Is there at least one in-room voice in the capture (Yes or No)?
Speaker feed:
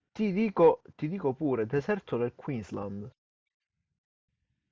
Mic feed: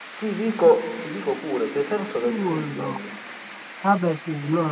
Yes